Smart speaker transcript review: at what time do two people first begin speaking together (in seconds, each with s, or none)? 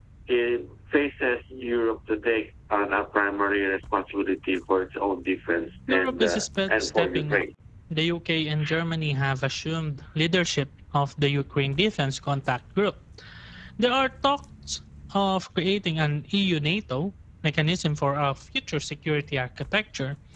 5.9 s